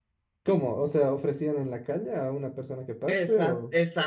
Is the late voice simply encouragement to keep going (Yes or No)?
No